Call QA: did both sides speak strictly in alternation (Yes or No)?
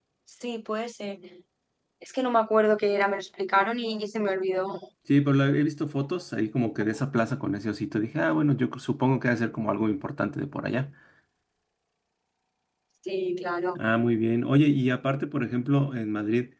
Yes